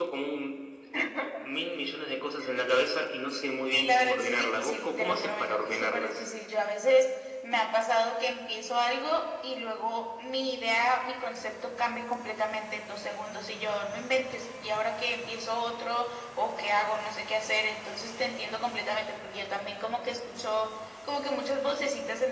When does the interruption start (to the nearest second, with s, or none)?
4 s